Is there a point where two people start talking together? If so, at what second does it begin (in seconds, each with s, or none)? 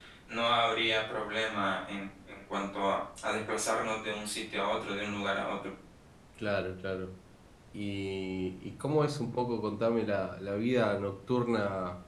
none